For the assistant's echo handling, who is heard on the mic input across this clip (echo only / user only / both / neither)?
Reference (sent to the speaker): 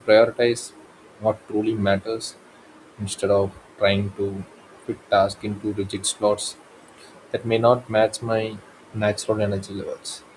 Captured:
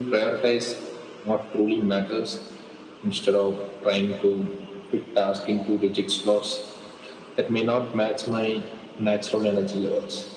echo only